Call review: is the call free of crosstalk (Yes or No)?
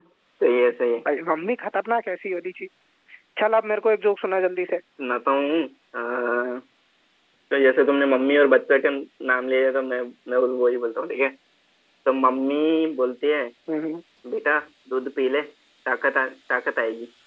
Yes